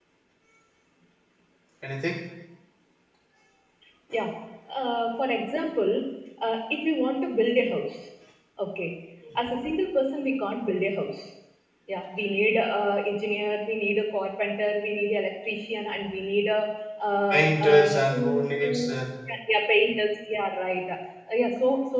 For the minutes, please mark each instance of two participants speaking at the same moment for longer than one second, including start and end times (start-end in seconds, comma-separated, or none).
17.3-18.9